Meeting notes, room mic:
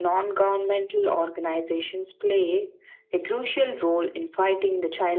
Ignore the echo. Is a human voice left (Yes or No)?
No